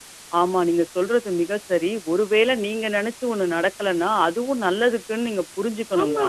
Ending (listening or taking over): taking over